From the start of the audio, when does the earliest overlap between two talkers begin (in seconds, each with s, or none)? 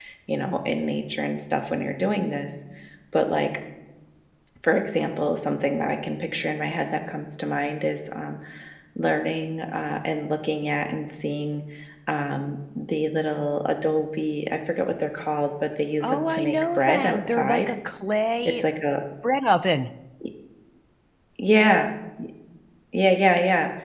16.0 s